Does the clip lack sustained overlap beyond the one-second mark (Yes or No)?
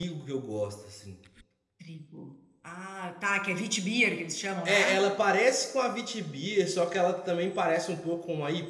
Yes